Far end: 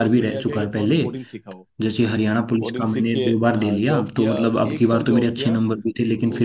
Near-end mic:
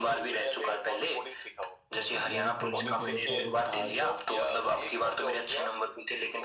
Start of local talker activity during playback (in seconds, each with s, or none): 2.0 s